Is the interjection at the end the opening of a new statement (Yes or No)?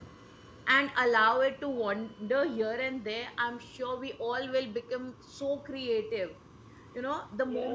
No